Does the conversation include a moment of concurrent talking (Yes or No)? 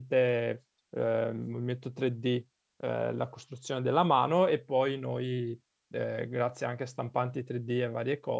No